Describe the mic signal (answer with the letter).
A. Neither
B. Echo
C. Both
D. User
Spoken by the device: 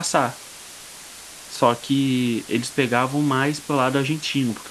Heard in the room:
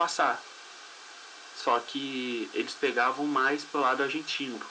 B